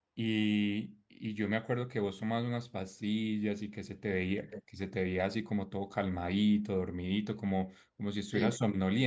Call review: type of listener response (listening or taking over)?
listening